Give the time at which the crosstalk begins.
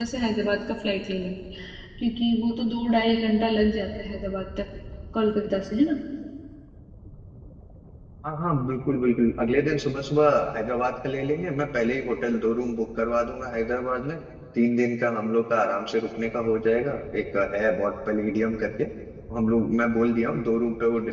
none

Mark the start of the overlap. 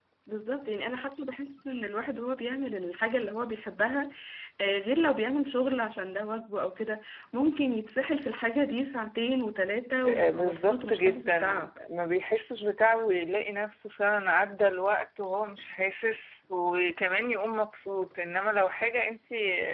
10.0 s

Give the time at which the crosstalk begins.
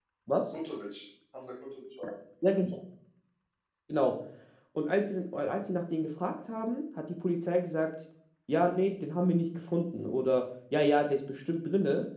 none

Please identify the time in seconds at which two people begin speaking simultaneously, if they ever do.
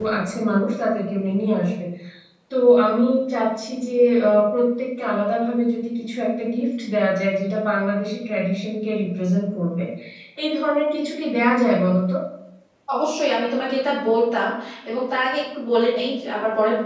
none

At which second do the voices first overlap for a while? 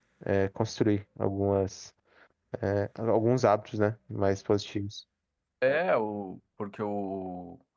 none

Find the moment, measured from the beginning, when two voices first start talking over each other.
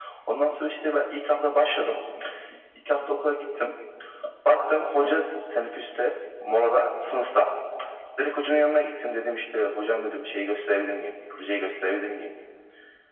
none

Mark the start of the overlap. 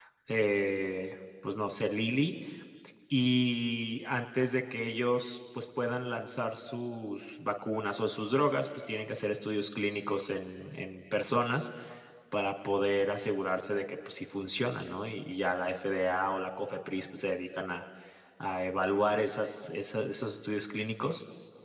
none

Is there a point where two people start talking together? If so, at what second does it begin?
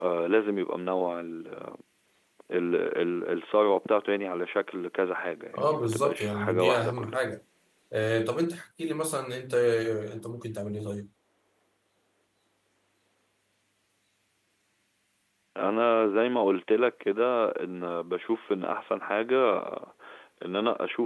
5.5 s

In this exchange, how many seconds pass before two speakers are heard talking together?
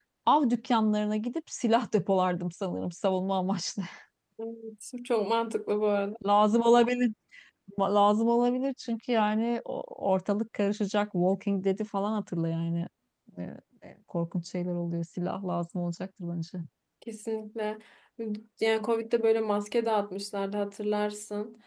none

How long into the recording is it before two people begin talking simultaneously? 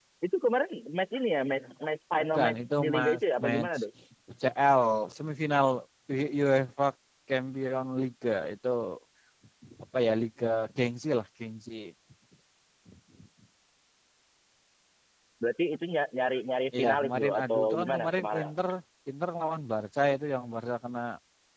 2.3 s

